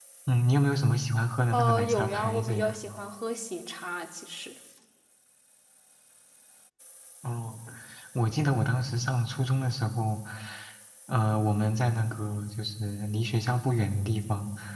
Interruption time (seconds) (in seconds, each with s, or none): 1.5 s